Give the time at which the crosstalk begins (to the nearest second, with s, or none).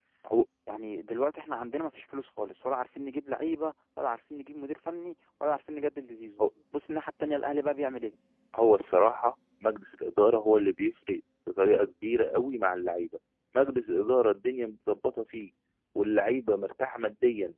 none